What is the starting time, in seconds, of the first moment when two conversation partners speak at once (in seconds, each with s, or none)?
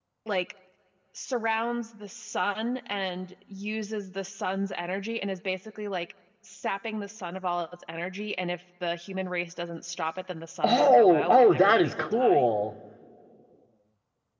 10.6 s